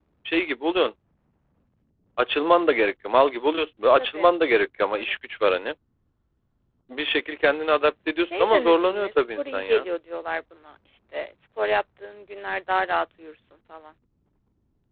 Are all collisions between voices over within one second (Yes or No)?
No